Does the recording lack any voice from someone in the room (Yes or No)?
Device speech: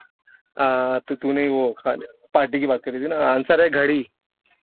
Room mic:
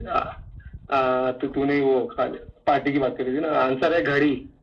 Yes